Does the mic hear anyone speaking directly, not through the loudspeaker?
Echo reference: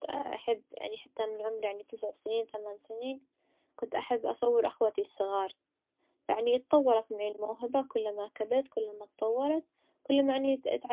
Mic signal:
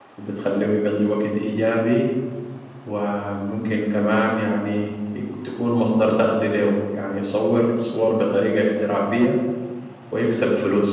Yes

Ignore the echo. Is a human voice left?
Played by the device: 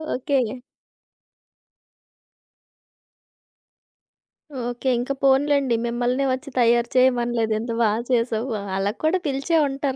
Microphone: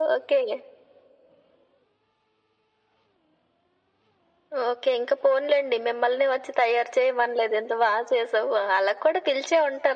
No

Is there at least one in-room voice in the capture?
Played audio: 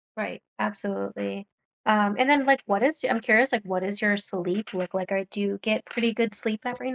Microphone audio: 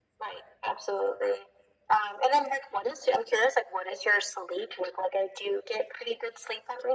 No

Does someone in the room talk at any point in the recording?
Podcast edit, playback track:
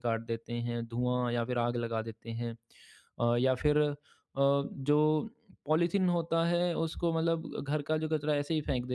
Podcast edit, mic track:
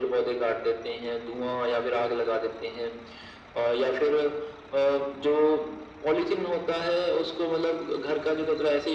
No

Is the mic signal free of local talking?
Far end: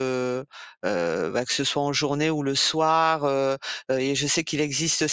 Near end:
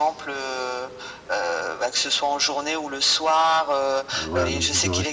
No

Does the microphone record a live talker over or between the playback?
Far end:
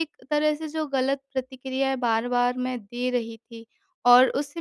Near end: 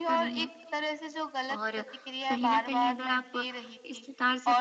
Yes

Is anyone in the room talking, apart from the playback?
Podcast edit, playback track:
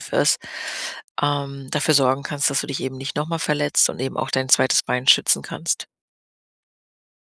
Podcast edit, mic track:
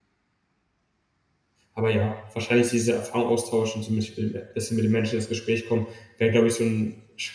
Yes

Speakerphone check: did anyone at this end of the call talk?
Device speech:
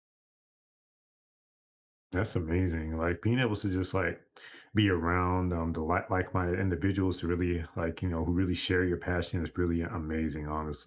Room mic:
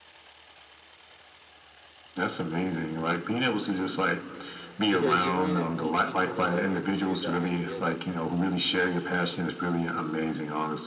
Yes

